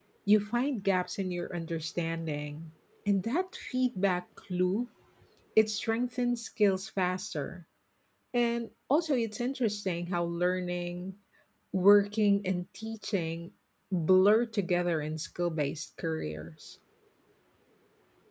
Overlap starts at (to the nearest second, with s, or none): none